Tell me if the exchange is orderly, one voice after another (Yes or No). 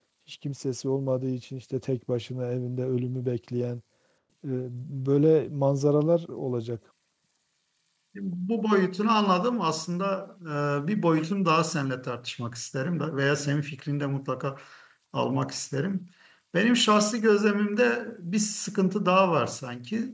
Yes